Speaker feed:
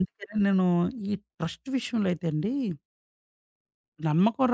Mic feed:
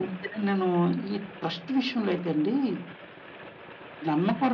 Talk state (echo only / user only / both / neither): echo only